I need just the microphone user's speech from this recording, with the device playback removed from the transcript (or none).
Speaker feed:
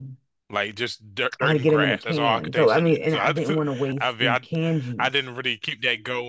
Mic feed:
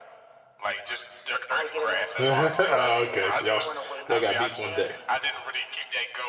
Oh, okay, so y'all y'all got beets on deck.